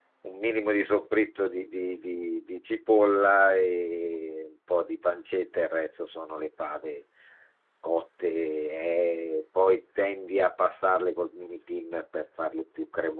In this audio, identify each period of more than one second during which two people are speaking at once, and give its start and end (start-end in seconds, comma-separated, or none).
none